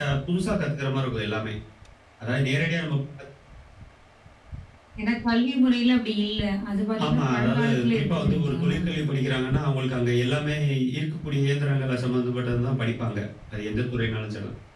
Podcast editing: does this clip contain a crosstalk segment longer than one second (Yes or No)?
Yes